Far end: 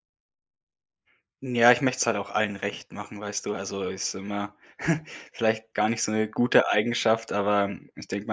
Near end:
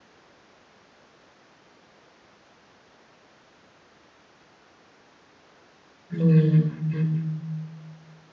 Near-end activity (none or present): present